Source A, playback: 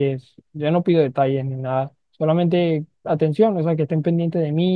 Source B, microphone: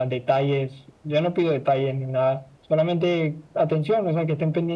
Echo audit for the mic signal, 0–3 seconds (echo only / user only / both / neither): echo only